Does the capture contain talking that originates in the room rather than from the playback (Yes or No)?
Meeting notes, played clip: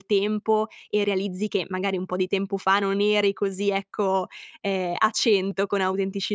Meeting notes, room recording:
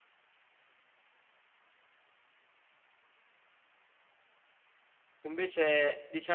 Yes